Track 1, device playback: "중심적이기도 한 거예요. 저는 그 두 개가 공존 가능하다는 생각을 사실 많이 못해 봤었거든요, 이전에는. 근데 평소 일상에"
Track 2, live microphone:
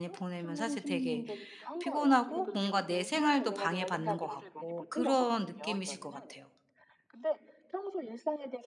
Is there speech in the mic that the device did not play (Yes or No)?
Yes